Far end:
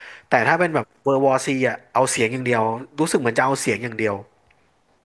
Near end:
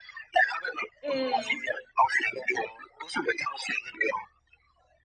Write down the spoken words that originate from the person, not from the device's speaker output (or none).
อืม